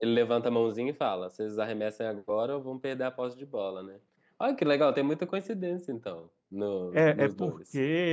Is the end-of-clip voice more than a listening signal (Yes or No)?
Yes